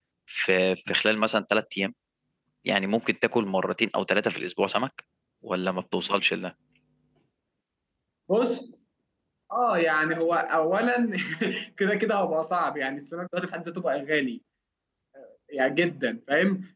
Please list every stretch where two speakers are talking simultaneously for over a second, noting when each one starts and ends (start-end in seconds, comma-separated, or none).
none